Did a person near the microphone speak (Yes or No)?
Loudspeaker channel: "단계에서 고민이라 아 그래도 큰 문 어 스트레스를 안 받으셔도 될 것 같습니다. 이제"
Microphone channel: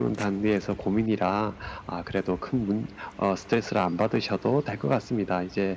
No